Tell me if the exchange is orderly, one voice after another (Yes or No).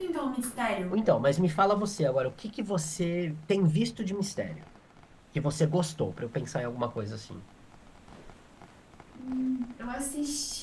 Yes